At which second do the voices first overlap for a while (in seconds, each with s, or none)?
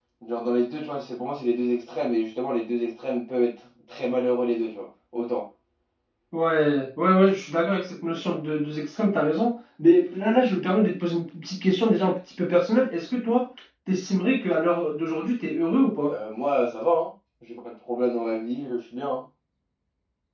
none